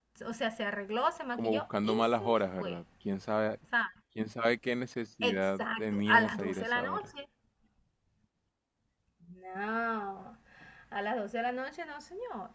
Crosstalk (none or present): present